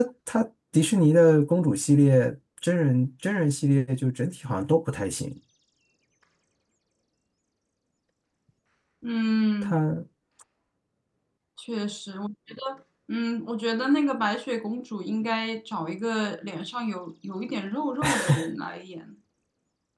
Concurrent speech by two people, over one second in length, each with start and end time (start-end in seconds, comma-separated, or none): none